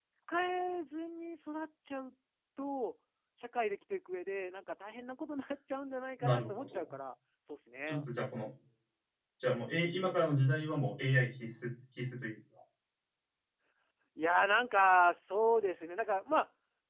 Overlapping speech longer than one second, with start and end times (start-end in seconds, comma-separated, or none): none